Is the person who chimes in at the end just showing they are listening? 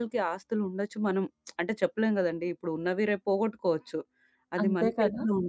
Yes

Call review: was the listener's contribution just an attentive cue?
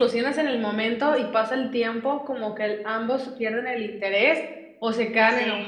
Yes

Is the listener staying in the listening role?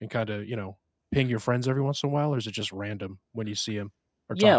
No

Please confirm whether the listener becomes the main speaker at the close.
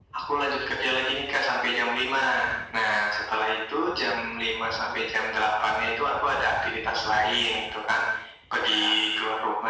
No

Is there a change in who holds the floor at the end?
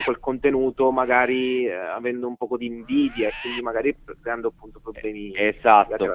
Yes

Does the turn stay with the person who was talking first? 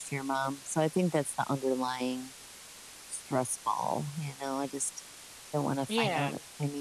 Yes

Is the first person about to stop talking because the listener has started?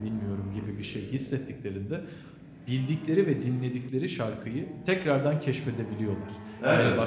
No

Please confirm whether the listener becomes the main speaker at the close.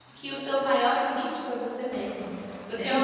No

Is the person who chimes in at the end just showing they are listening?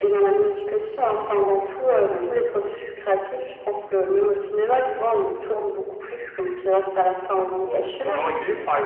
No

